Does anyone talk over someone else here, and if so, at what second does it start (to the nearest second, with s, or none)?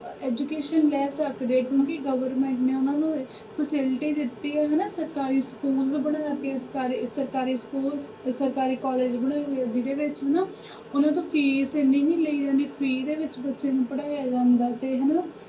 none